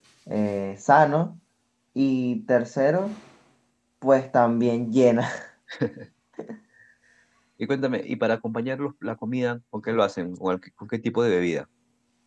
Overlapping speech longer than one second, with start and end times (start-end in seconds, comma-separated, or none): none